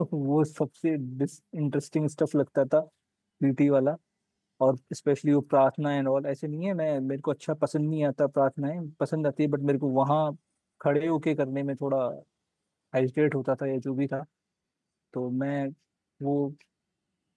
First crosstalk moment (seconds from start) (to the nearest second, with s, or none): none